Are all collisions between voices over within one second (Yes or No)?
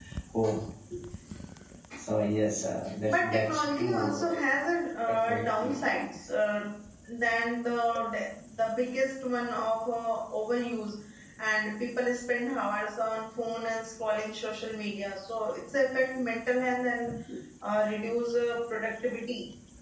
No